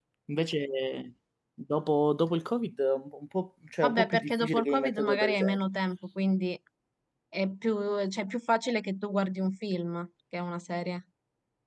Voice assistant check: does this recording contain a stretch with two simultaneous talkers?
Yes, from 3.8 s

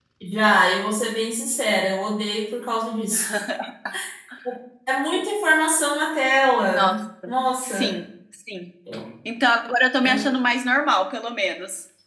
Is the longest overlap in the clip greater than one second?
No

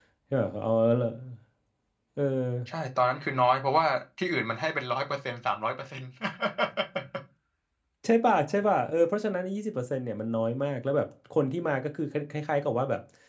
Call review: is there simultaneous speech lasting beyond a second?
No

